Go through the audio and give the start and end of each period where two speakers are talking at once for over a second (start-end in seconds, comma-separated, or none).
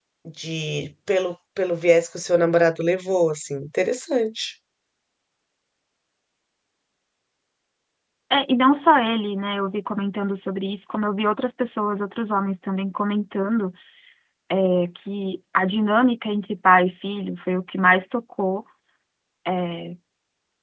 none